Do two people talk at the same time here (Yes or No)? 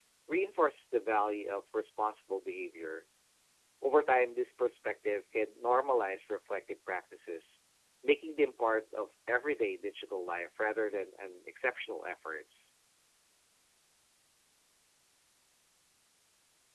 No